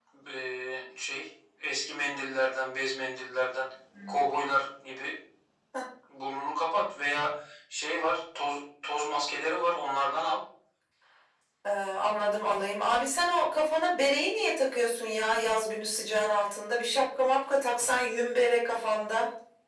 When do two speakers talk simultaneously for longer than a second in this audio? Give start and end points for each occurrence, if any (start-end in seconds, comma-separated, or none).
none